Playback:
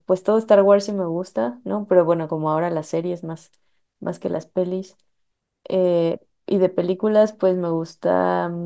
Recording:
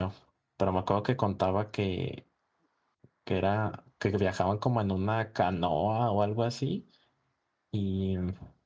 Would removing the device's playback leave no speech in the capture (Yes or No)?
No